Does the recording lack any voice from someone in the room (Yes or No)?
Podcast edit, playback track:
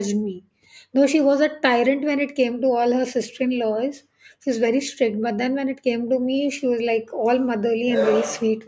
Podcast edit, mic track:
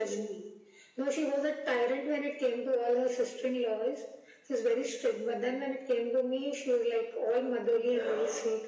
Yes